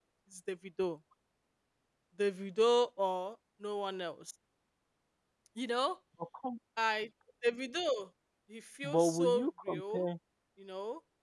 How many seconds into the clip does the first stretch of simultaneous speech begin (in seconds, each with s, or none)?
8.8 s